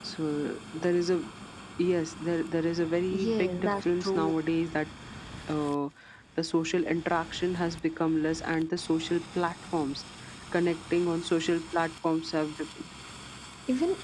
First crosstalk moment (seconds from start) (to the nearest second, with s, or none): 3 s